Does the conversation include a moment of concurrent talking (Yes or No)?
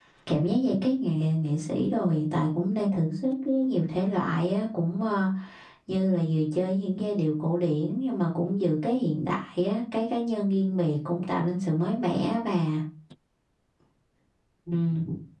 No